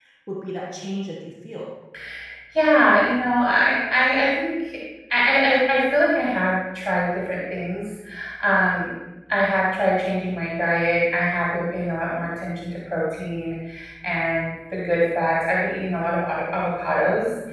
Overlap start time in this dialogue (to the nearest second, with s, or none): none